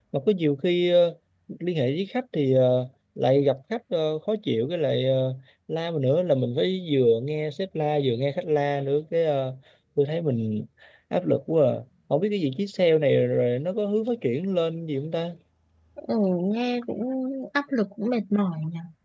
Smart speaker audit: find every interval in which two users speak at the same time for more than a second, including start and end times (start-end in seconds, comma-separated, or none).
none